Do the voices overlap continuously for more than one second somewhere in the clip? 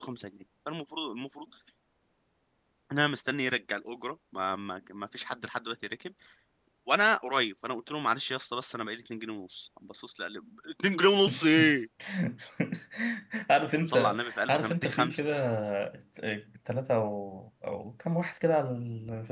Yes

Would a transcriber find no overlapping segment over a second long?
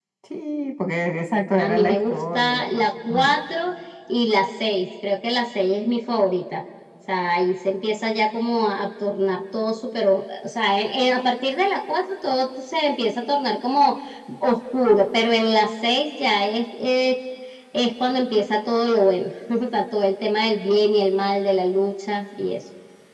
No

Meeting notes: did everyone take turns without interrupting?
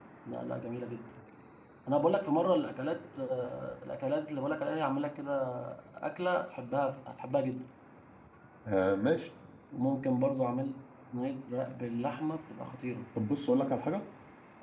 Yes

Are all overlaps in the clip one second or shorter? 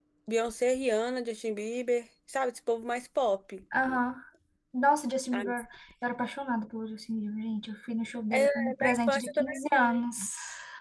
No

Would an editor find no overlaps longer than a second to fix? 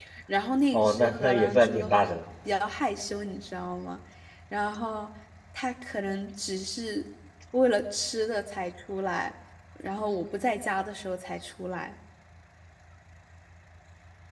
No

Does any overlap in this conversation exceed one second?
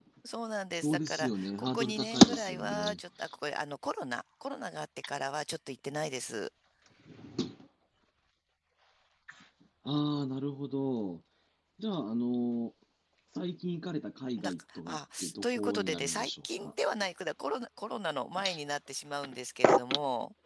Yes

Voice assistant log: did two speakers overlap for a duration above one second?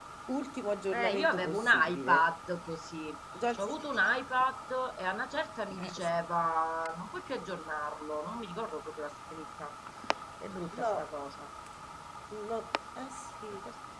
Yes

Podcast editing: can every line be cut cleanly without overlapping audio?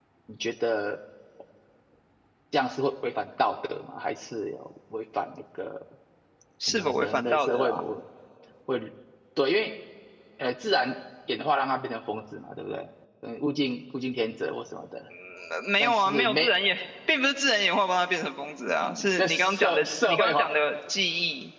No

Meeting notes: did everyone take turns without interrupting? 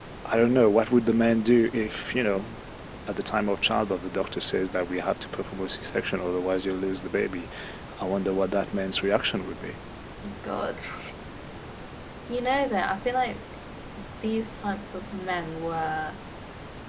Yes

